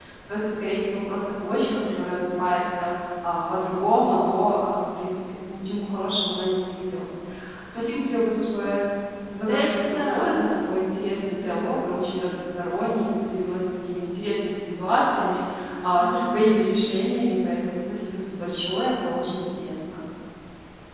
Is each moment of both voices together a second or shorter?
No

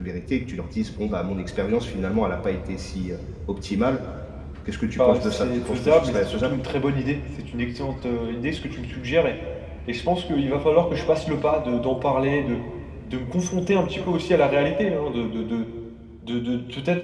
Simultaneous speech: Yes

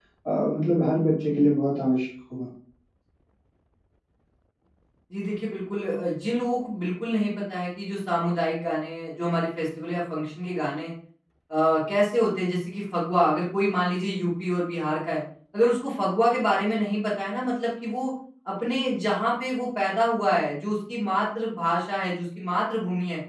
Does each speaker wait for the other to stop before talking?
Yes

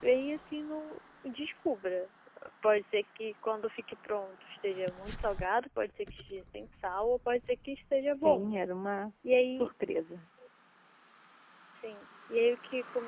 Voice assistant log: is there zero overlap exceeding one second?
Yes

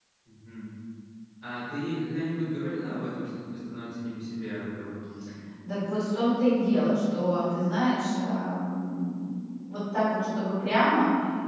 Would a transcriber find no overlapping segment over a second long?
Yes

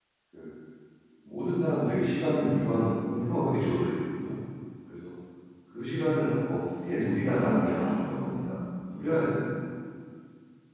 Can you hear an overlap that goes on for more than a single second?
Yes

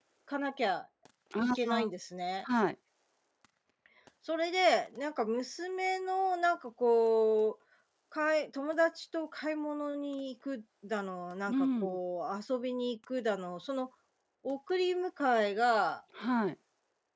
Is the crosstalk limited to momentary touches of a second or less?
Yes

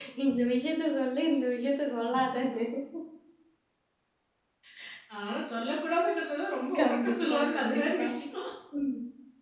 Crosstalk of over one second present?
Yes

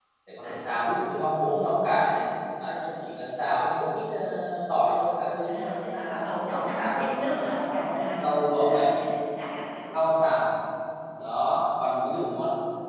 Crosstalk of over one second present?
Yes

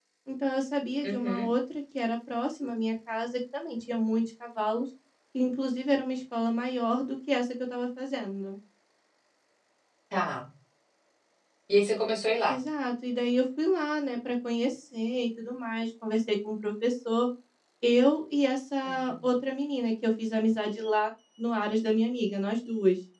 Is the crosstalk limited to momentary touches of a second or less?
Yes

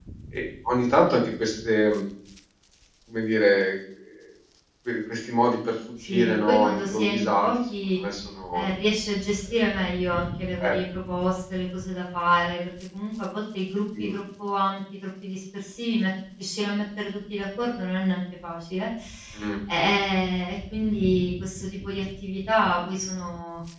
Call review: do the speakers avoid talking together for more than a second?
No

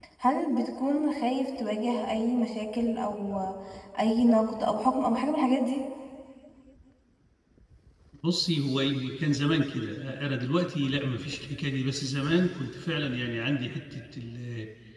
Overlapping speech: No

